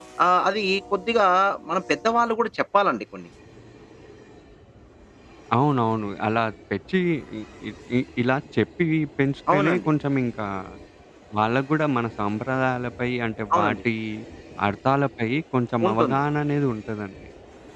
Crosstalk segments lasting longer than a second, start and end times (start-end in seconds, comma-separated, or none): none